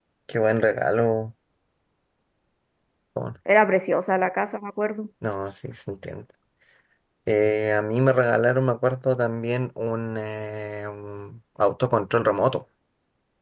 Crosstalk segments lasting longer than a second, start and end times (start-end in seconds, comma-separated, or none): none